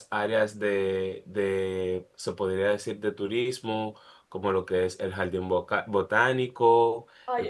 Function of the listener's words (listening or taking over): taking over